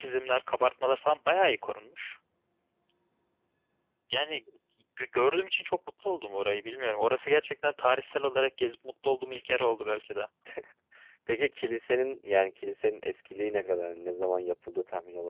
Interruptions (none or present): none